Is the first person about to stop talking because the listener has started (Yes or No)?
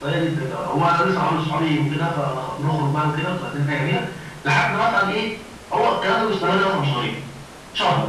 No